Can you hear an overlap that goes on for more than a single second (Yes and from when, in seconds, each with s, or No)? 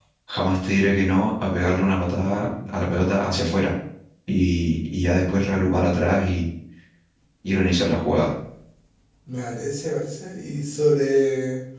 No